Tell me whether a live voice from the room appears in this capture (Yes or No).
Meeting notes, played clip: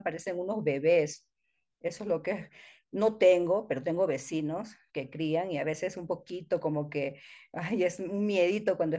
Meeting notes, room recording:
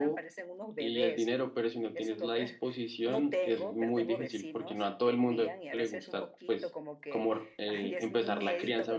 Yes